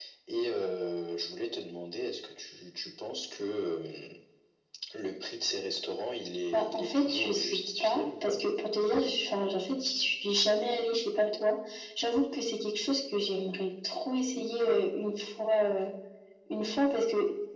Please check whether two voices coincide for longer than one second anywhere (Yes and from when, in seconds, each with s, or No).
Yes, from 6.5 s